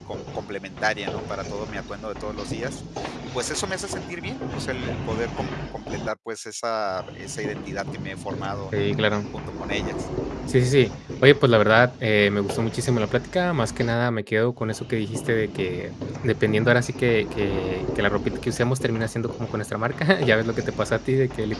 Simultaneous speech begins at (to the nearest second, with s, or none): none